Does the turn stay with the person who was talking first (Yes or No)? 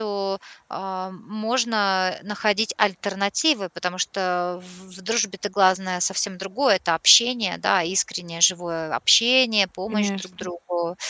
Yes